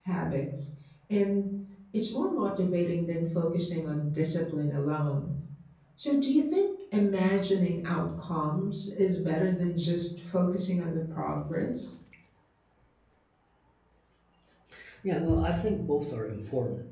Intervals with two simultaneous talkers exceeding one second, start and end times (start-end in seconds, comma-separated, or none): none